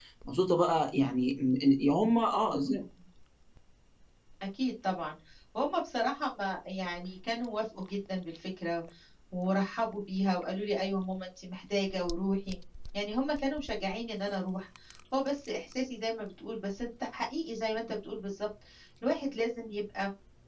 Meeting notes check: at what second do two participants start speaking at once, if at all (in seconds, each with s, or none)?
none